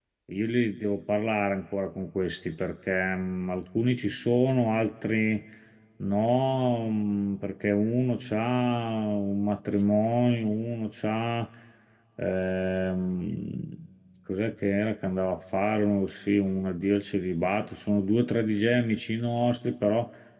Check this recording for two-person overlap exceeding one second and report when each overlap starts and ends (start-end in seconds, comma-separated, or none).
none